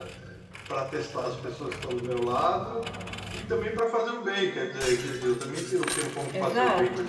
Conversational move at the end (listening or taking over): taking over